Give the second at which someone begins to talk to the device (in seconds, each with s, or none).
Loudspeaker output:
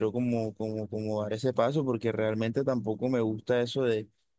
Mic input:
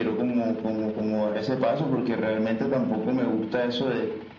none